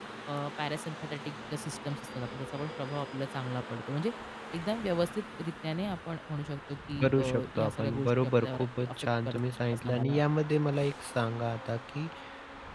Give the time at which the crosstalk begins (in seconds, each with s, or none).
7.0 s